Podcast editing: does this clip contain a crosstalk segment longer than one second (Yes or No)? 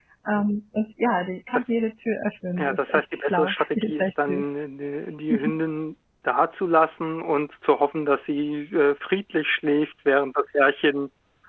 Yes